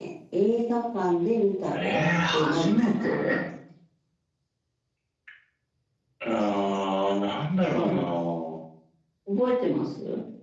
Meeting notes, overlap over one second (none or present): present